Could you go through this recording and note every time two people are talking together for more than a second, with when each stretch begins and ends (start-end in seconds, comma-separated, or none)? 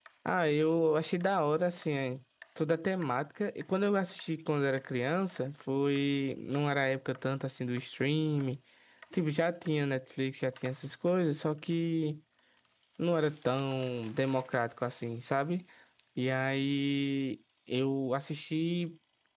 none